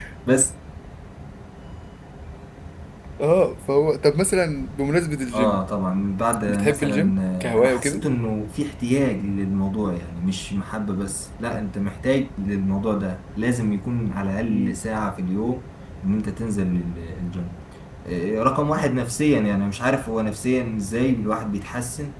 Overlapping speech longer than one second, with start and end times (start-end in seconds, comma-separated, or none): 6.5-8.0